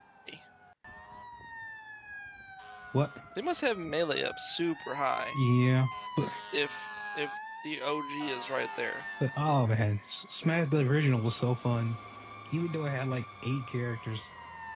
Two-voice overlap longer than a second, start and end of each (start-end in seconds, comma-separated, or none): none